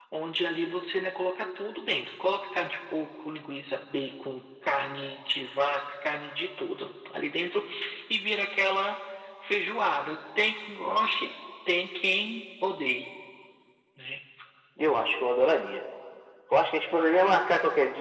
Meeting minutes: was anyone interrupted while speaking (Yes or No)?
No